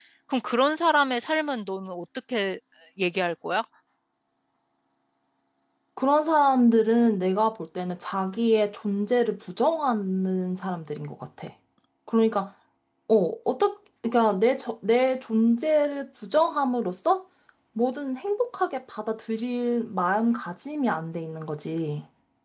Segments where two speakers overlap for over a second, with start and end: none

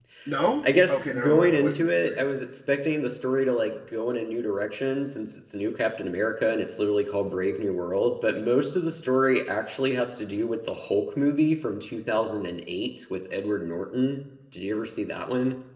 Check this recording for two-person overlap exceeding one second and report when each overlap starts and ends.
0.6-2.2

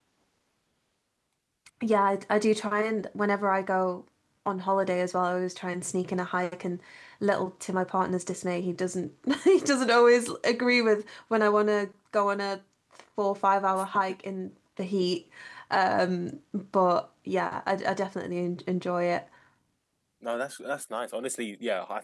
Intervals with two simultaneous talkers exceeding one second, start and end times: none

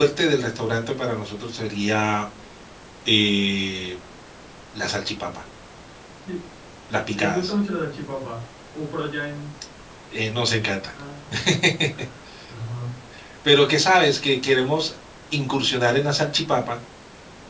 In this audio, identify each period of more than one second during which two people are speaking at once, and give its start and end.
none

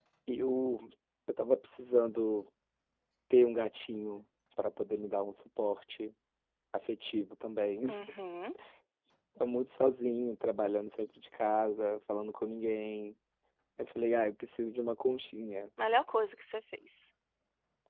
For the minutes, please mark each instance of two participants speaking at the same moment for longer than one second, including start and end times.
none

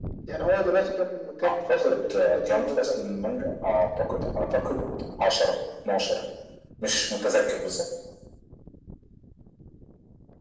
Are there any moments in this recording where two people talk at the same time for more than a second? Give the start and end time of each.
1.7-3.1

